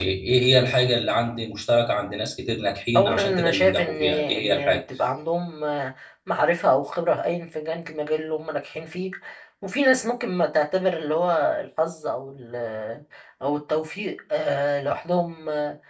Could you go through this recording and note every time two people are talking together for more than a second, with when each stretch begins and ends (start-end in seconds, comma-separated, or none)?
3.0-4.8